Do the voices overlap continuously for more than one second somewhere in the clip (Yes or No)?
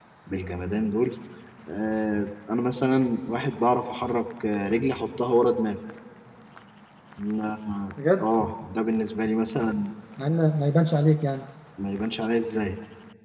No